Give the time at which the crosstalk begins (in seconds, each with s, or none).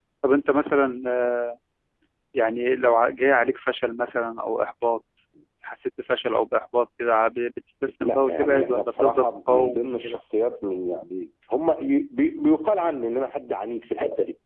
8.0 s